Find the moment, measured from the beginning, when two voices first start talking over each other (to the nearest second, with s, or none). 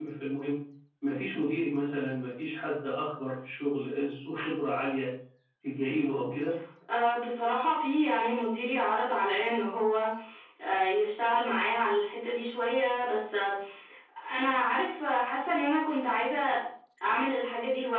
none